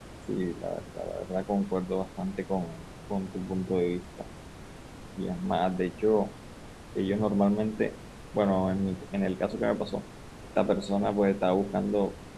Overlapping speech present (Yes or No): No